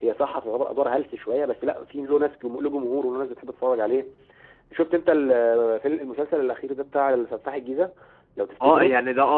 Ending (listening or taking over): taking over